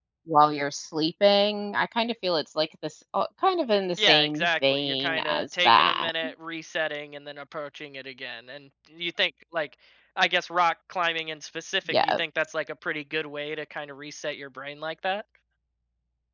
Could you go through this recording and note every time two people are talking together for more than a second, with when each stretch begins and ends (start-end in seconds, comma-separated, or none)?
4.0-6.1